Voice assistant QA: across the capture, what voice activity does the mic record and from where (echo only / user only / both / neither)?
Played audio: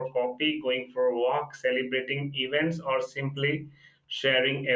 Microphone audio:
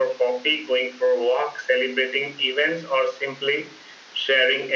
echo only